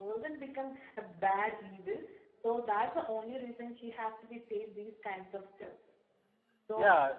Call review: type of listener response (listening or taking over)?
taking over